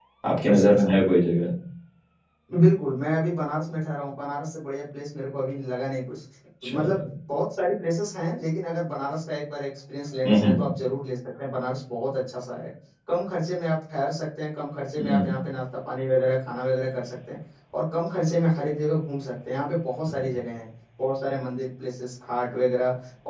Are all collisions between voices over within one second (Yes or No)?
Yes